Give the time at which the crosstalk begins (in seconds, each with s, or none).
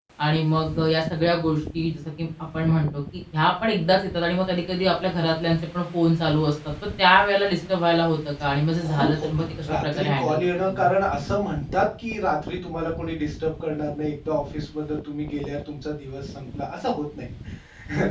8.8 s